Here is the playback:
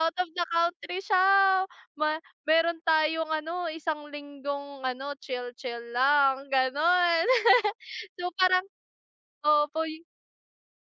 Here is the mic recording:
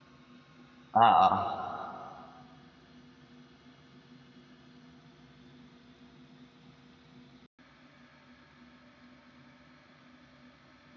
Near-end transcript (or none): Oo.